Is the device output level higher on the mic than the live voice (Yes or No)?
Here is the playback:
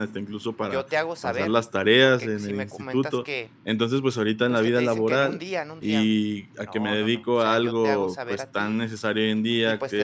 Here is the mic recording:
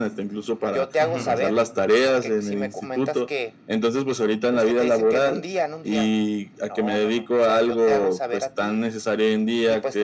Yes